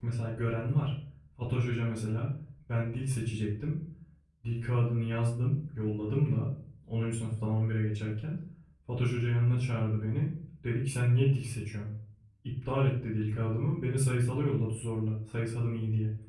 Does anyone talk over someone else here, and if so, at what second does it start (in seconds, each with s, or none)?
none